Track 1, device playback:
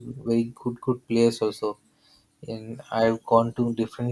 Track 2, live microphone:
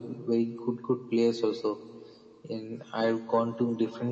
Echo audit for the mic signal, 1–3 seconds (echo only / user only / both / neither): echo only